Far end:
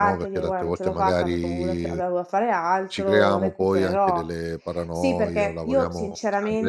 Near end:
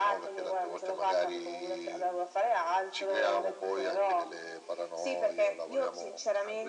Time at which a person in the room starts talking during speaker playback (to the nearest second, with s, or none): none